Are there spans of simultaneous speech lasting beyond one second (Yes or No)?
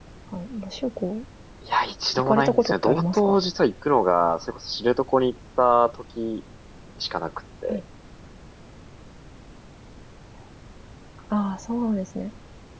Yes